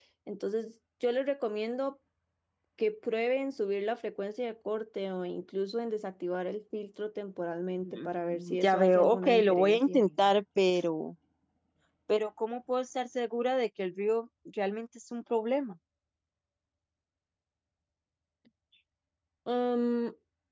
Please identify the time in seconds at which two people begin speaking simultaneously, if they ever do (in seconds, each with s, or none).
7.8 s